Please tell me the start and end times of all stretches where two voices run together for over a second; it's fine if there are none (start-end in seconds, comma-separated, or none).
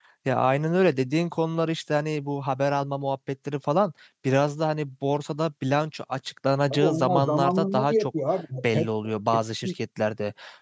6.7-8.1